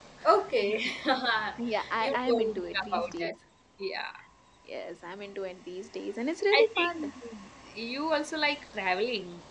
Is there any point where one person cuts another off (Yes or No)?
Yes